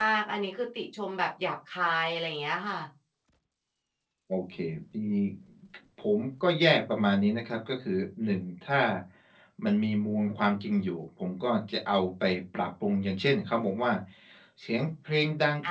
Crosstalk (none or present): none